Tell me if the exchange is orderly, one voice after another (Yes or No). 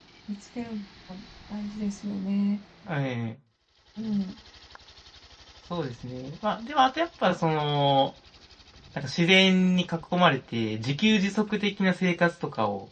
Yes